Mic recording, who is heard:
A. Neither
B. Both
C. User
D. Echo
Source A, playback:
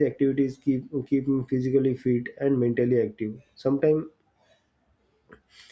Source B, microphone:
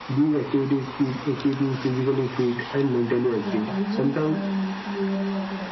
B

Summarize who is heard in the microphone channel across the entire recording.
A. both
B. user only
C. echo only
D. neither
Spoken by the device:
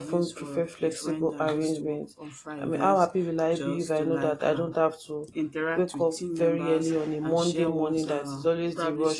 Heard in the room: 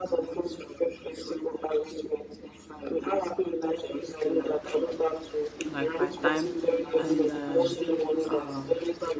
A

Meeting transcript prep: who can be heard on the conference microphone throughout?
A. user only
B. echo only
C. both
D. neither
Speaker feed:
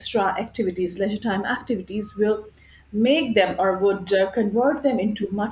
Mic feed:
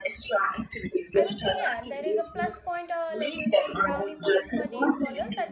C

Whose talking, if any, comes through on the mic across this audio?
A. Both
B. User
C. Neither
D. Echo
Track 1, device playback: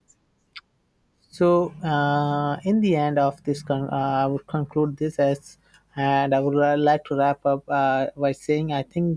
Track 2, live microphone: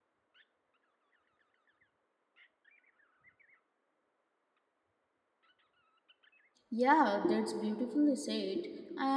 B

